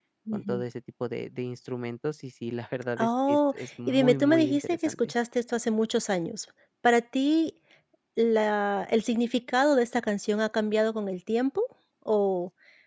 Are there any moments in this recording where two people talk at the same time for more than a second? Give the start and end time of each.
3.0-5.1

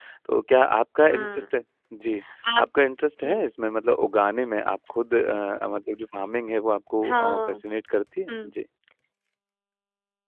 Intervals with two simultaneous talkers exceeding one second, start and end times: none

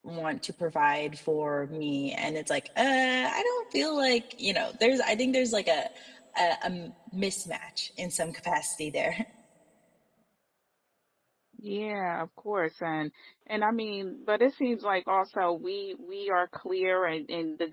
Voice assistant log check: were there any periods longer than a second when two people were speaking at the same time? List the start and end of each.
none

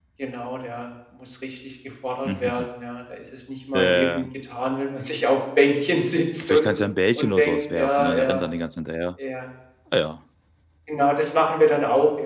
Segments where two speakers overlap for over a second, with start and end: 7.2-8.4

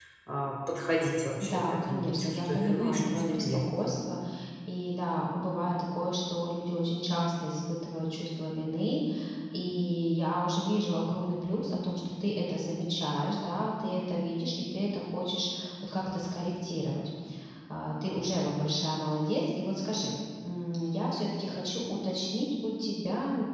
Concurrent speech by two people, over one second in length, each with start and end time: 1.4-3.8

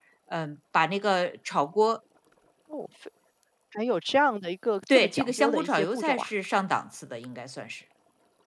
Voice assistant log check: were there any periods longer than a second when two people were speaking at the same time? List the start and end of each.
4.9-6.3

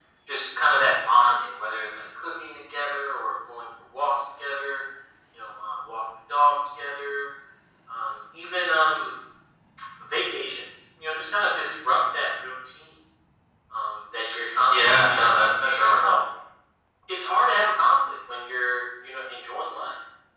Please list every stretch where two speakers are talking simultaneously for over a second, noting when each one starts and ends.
14.7-15.9

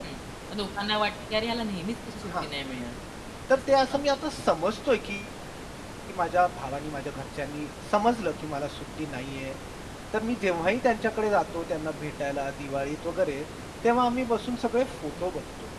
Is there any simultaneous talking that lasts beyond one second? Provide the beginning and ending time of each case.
none

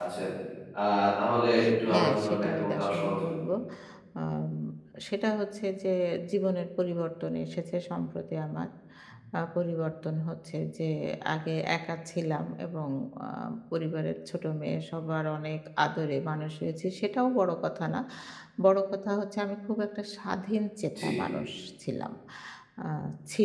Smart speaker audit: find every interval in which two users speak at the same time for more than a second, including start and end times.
1.9-3.3

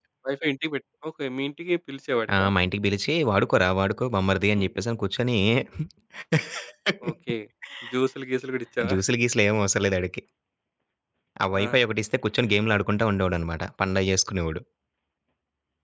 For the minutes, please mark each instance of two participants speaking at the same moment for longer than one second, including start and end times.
none

